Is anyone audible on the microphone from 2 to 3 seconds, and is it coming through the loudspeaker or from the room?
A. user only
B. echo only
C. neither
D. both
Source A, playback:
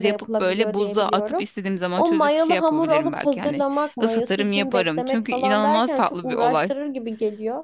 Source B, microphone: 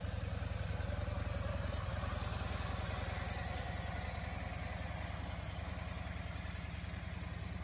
C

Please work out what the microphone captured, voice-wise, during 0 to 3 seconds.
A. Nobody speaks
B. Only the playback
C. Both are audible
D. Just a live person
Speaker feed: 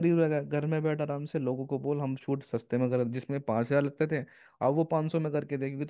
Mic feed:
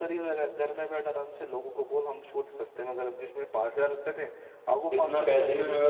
B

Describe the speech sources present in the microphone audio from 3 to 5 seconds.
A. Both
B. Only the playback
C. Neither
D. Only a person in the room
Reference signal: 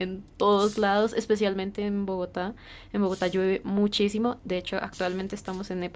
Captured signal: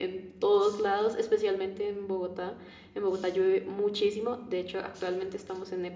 B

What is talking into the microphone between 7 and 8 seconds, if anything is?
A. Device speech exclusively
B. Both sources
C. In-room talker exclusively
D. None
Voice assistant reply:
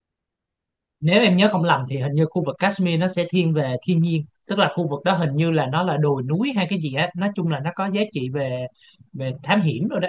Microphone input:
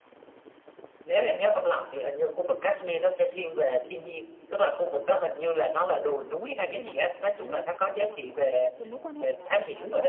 B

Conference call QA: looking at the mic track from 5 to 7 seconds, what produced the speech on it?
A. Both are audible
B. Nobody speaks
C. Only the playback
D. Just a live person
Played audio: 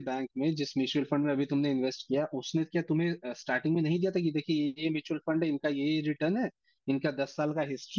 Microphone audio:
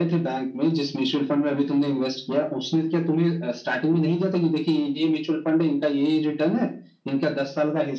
C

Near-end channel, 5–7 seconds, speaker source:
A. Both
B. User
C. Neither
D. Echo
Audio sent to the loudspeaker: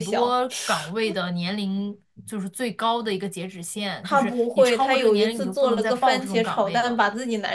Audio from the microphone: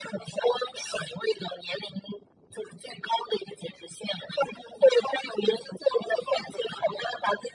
D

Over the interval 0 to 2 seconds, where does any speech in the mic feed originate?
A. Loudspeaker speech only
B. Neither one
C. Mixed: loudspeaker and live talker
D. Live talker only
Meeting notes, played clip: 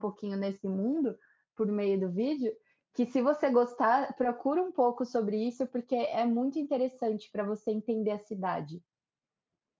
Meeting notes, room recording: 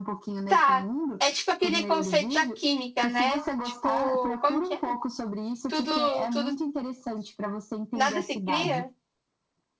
C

